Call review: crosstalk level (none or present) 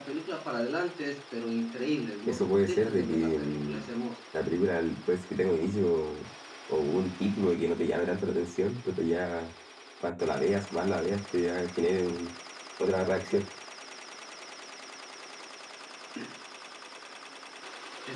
present